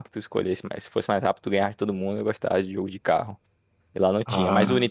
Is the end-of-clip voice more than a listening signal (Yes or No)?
No